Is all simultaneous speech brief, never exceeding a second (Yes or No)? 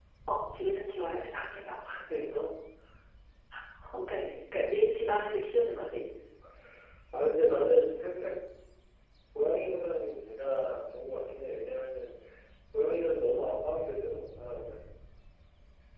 Yes